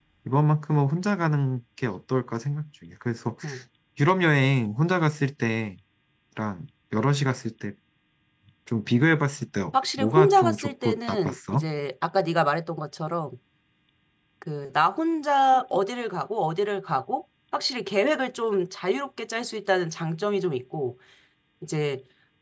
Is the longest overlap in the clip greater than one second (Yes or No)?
Yes